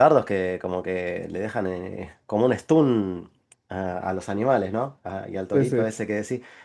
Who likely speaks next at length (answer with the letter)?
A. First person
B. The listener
A